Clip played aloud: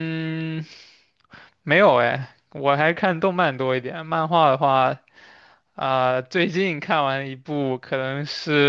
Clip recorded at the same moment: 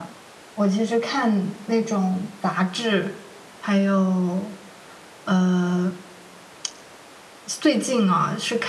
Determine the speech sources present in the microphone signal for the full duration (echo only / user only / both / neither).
user only